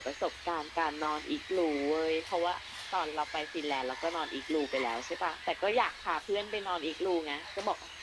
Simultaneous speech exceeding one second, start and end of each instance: none

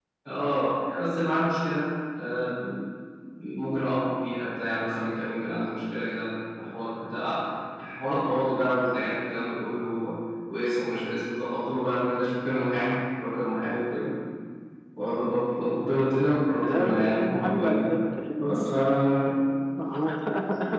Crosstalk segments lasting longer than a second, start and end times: 16.6-17.9

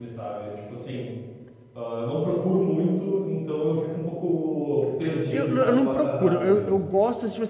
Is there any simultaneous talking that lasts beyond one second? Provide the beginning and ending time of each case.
5.3-6.8

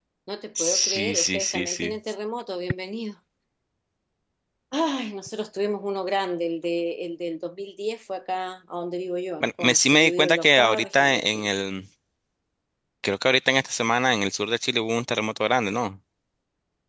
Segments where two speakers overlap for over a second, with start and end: 0.6-1.9, 9.4-11.5

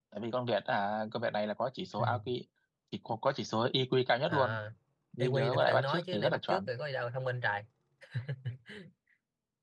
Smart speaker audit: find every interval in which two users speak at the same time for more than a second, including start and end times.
5.2-6.7

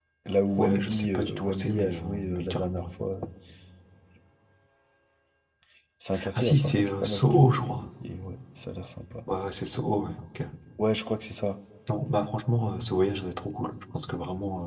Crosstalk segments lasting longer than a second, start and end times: 0.6-2.9, 6.3-7.7

